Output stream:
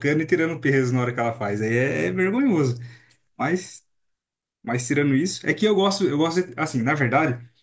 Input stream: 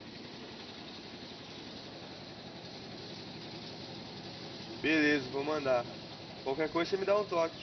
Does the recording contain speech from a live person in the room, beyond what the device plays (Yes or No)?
Yes